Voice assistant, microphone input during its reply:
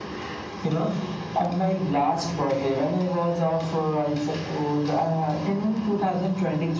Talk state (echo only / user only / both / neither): echo only